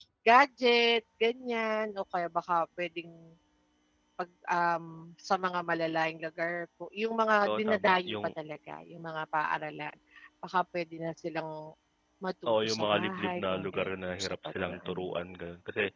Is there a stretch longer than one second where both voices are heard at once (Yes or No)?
Yes